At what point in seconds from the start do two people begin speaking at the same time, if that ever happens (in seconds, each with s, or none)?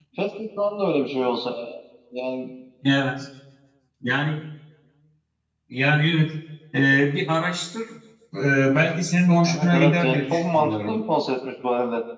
9.4 s